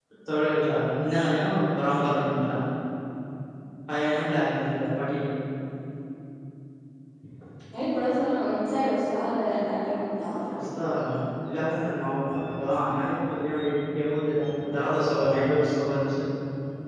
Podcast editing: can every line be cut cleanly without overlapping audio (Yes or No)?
Yes